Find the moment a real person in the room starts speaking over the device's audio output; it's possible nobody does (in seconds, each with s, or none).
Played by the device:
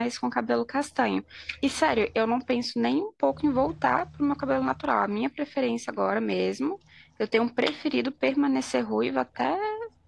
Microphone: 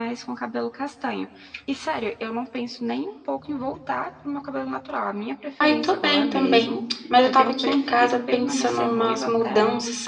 5.6 s